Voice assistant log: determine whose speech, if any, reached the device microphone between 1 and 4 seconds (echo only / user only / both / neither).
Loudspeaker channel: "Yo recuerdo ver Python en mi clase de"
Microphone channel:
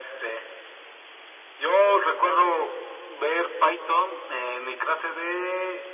echo only